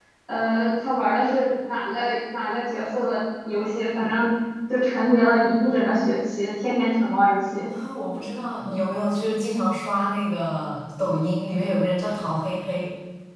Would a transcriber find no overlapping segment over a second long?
Yes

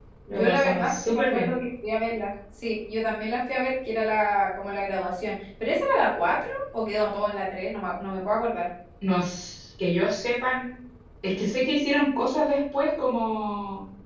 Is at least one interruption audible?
Yes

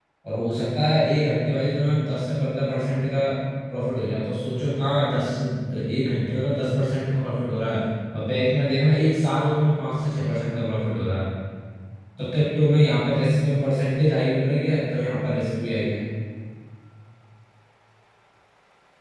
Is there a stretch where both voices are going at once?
No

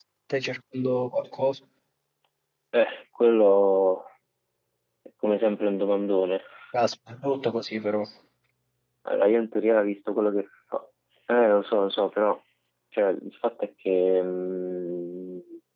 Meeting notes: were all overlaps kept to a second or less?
Yes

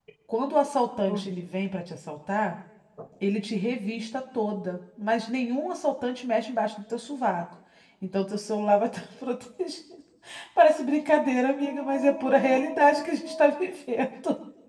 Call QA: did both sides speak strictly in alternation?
No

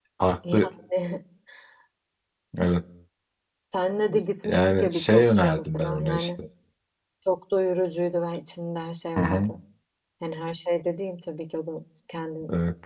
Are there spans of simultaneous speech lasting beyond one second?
Yes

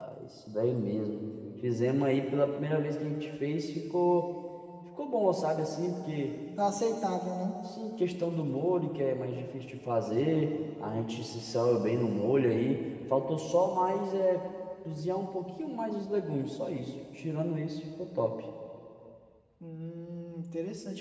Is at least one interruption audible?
No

